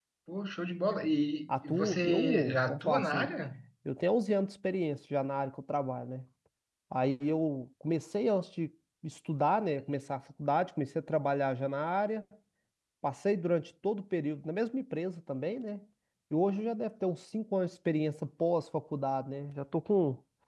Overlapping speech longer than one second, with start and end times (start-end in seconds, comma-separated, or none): 1.5-3.3